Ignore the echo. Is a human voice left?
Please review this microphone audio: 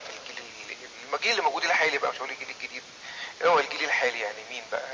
No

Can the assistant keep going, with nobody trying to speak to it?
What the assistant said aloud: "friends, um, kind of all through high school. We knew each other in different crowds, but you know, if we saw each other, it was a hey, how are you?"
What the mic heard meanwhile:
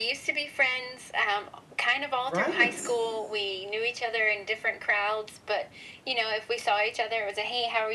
No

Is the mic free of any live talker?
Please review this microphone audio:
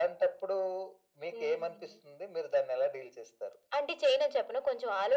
Yes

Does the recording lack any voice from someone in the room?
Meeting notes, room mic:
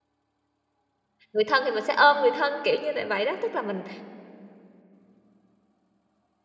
No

